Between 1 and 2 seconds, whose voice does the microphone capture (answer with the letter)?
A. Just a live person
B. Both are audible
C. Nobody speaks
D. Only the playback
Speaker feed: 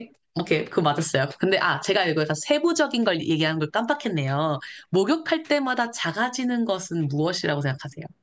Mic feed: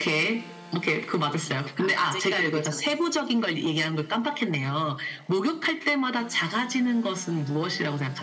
B